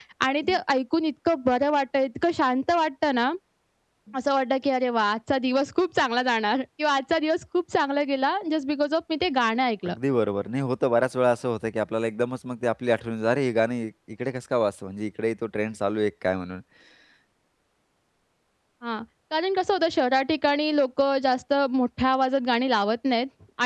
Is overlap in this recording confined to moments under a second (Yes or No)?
Yes